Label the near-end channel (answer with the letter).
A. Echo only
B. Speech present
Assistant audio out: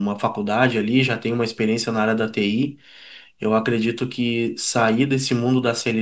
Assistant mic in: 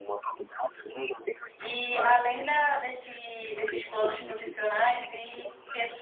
B